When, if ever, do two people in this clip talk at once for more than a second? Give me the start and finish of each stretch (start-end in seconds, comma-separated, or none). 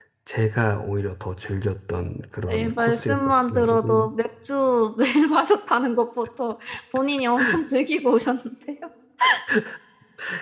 2.5-4.1